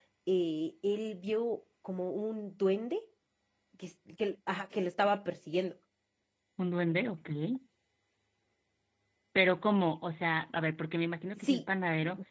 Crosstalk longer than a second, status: none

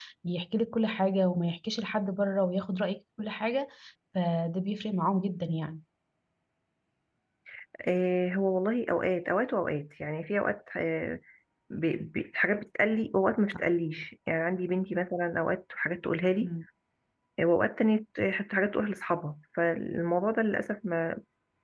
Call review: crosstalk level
none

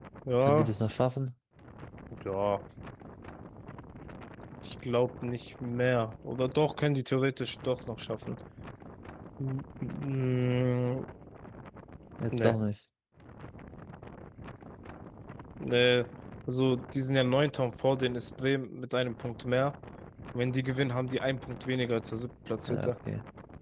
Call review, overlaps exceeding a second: none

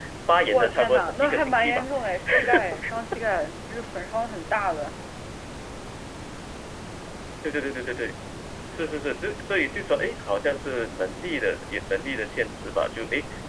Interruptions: present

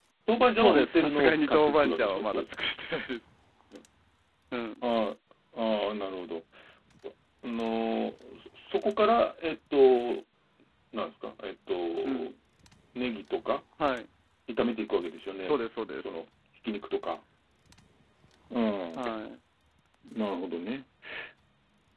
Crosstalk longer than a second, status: present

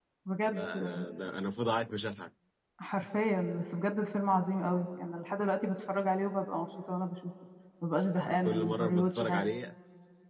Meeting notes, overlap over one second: present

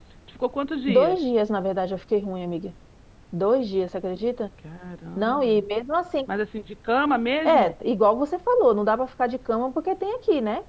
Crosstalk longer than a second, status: none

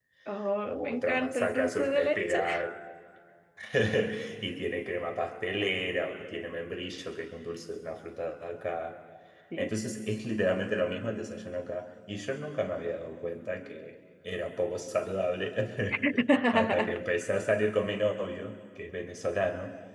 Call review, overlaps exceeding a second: present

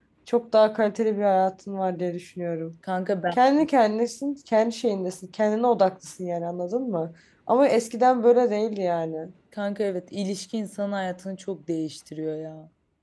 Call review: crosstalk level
none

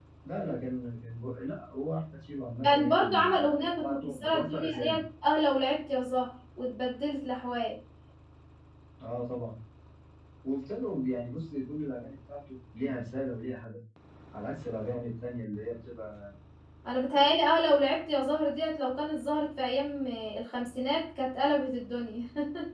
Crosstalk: present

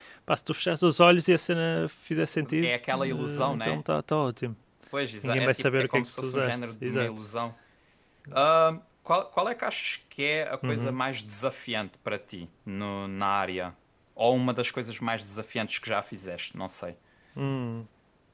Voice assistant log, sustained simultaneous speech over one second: present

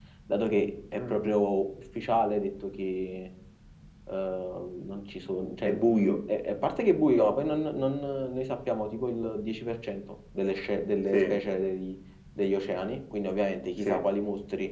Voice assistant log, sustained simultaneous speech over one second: none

